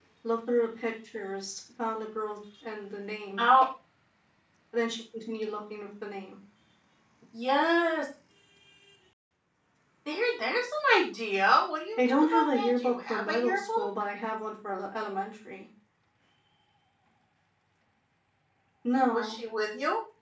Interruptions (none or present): present